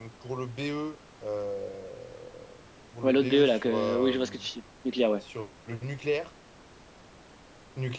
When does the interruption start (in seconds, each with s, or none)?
3.0 s